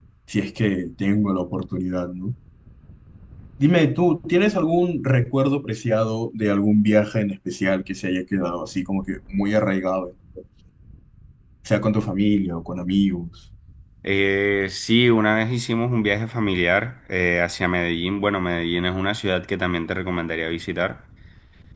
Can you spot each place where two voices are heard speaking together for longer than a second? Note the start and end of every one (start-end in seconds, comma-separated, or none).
none